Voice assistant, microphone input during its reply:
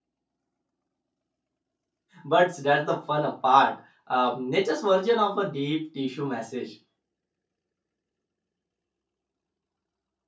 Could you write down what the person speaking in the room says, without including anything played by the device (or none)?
but that's the fun part. Um, nature's version of a deep tissue message.